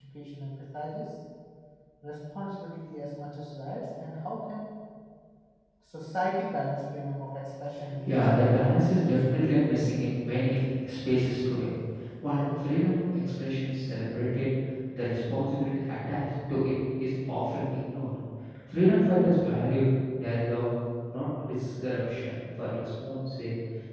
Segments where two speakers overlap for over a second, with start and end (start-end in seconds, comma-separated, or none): 8.0-9.9